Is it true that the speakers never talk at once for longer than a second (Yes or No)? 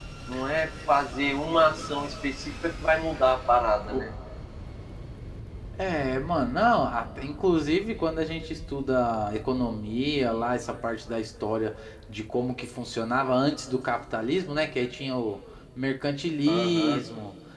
Yes